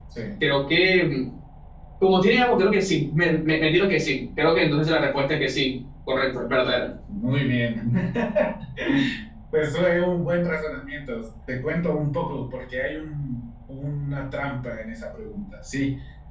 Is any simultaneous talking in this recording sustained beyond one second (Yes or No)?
No